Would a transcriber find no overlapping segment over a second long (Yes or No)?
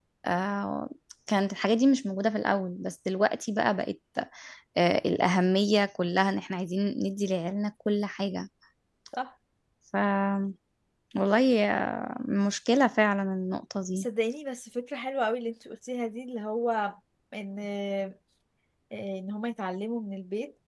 Yes